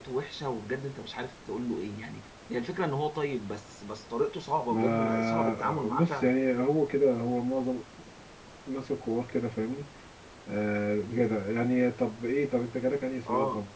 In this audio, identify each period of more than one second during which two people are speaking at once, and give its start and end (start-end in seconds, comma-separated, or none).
4.7-6.3